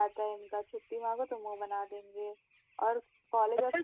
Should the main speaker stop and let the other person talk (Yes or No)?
Yes